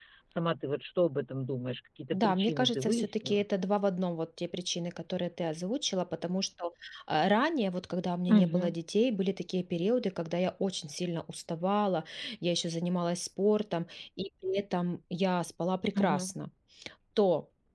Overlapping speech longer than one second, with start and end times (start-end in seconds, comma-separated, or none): 2.1-3.4